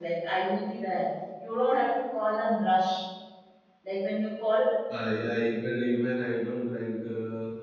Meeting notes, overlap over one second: none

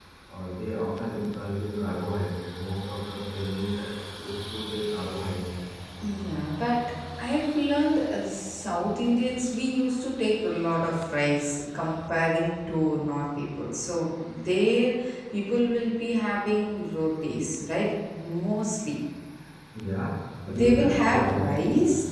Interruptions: present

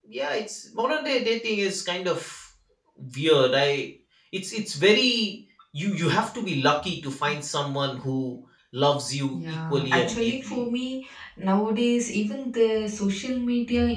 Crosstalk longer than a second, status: present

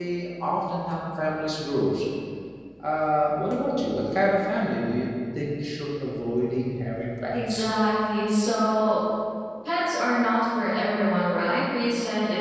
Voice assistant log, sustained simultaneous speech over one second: none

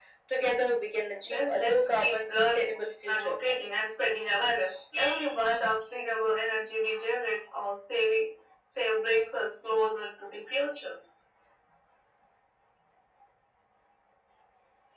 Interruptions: present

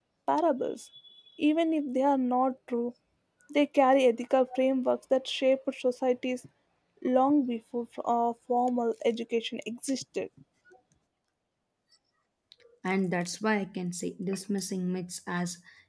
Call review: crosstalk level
none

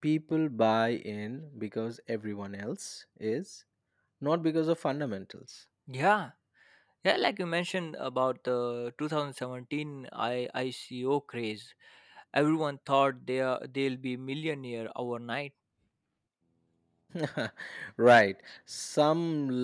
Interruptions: none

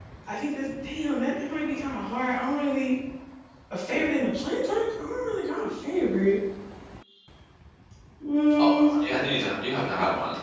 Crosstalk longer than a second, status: none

